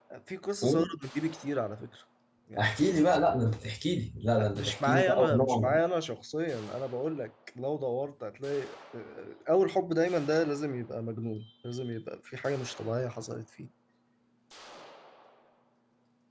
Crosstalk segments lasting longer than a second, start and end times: 4.4-5.8

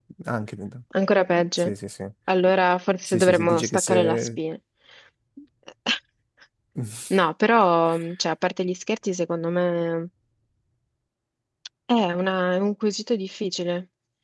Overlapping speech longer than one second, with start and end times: 3.1-4.4

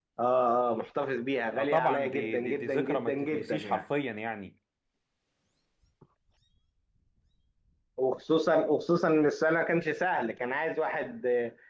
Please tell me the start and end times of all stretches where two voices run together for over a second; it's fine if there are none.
1.6-3.8

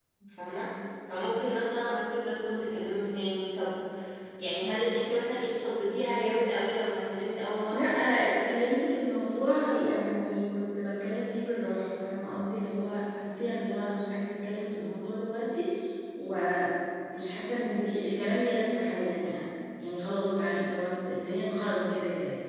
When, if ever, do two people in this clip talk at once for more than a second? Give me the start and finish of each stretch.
none

